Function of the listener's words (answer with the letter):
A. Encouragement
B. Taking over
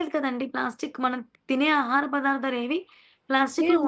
B